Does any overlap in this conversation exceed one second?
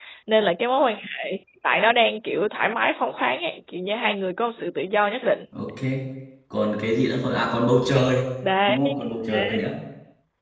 No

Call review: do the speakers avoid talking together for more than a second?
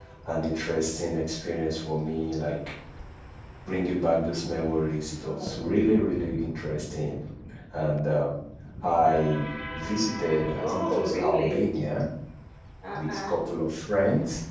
No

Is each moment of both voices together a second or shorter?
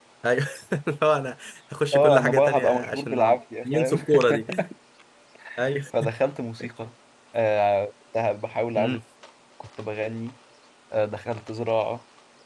No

